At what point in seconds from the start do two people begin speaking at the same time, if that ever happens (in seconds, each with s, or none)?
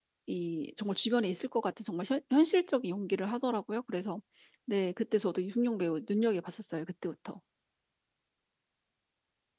none